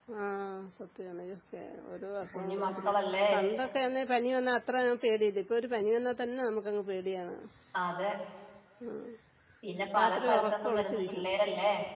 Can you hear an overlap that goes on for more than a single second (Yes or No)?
Yes